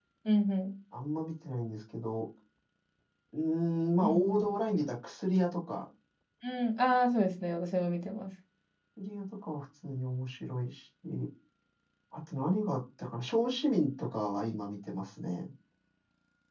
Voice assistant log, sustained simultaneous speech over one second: none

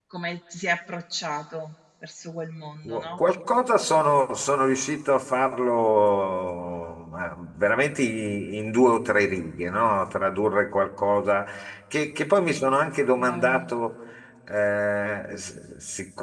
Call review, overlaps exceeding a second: none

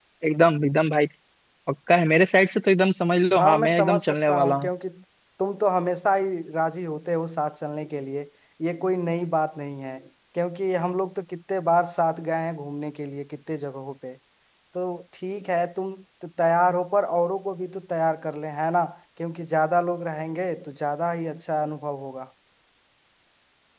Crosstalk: present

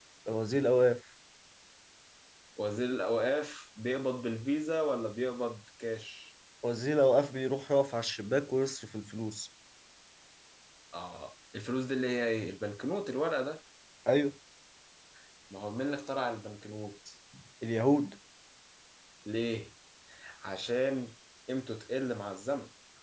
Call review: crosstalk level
none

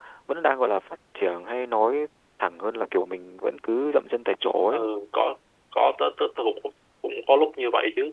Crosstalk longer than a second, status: none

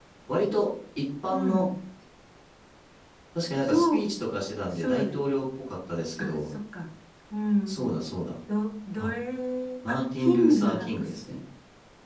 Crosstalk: present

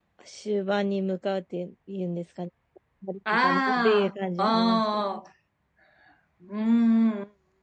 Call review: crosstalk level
present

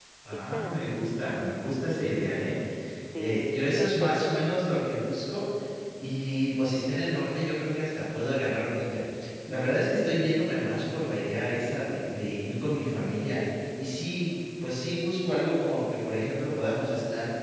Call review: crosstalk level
present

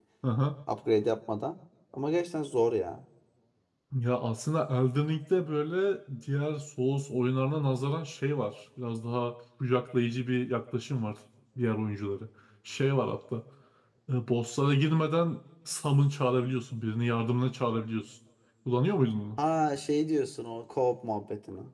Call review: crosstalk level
none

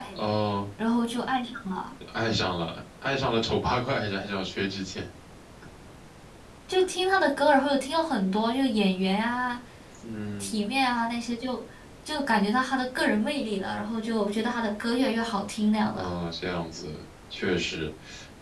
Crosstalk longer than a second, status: none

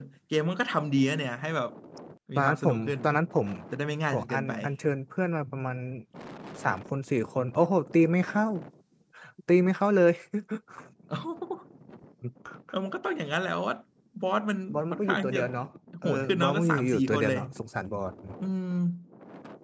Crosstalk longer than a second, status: present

